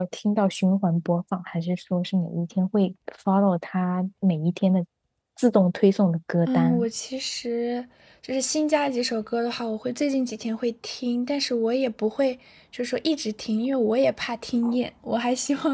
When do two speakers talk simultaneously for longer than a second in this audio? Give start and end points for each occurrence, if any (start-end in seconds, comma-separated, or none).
none